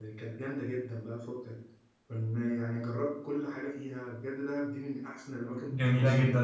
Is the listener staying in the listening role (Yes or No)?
No